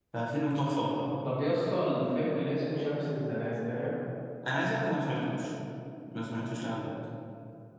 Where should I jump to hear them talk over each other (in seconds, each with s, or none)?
none